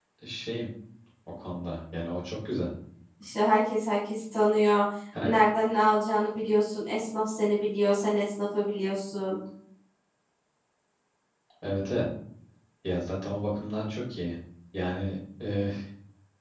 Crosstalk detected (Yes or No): No